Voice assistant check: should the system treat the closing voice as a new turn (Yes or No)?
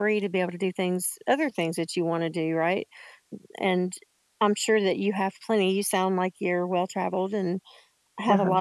No